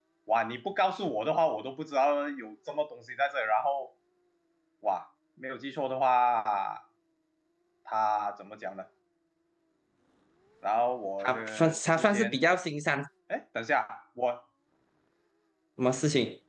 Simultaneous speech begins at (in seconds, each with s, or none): 11.2 s